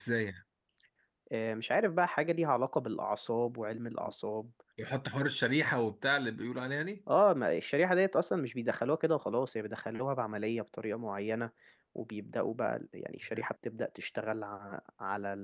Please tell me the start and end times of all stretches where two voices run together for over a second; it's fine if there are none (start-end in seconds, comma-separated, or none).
none